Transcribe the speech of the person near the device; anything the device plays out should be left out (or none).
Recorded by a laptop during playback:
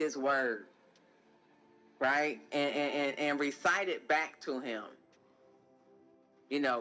none